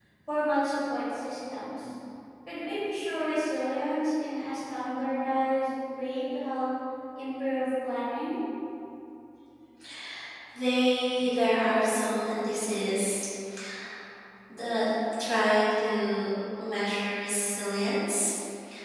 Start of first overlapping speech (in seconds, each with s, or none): none